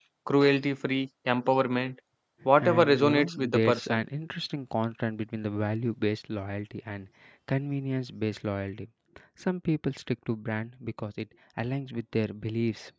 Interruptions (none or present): present